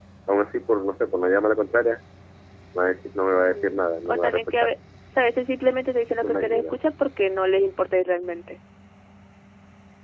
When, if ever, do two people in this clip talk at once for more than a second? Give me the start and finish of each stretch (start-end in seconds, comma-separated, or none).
3.3-4.7